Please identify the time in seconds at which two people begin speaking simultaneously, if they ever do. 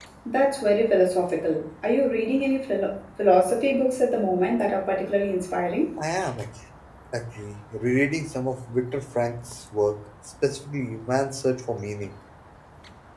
none

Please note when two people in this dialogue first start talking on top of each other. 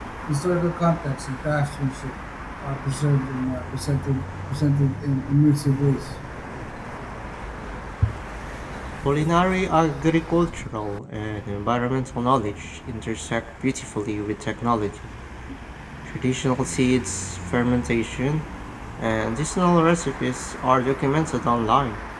none

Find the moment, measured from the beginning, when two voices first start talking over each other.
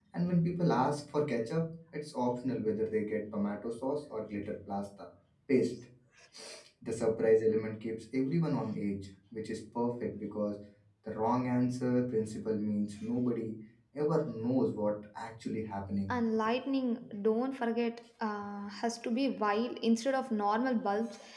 none

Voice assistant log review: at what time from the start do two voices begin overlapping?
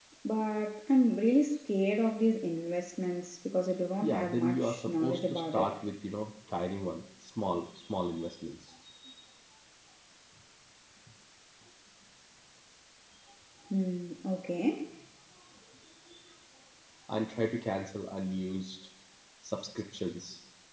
4.0 s

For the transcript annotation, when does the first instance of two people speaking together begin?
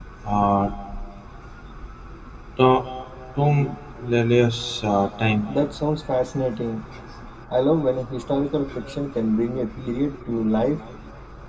none

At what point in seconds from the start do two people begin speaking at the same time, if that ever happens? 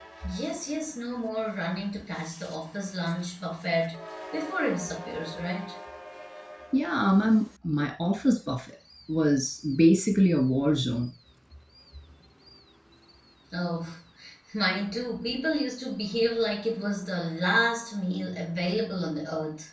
none

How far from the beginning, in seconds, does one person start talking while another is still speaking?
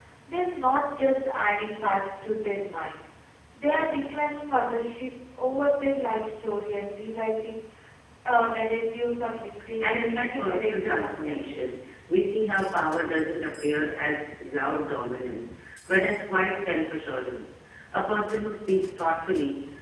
9.8 s

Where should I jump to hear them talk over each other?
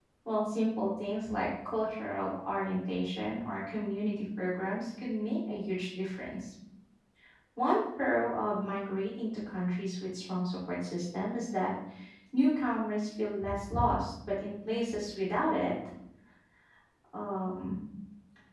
none

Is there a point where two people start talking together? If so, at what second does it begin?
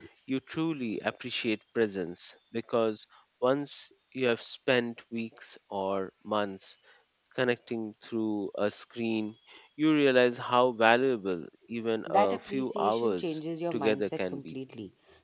12.1 s

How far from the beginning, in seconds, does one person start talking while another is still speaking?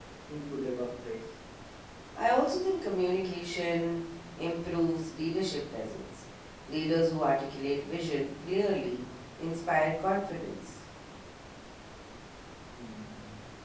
none

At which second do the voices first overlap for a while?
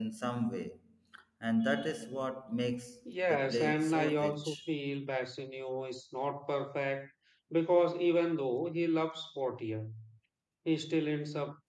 3.3 s

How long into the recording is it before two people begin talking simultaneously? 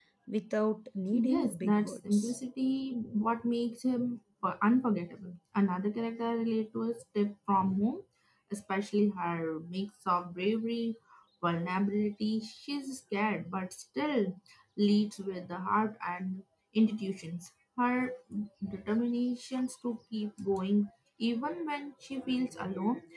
1.1 s

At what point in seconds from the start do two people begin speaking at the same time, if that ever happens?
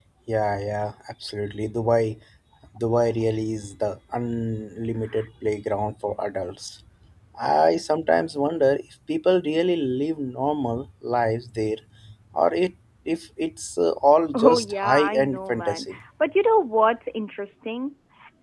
14.3 s

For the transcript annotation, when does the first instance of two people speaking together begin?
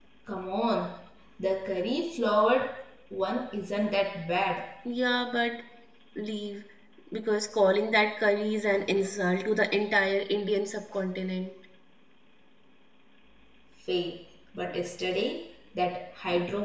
none

